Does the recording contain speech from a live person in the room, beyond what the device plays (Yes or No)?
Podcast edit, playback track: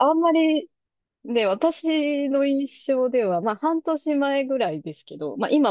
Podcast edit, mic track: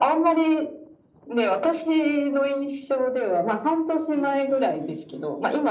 Yes